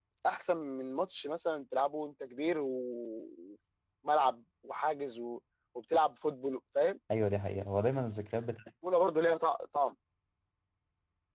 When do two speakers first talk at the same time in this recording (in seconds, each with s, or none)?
none